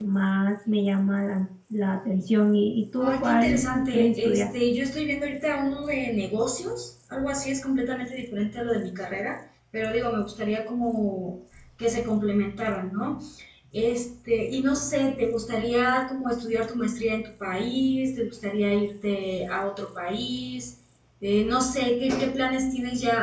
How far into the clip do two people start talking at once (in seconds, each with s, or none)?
3.0 s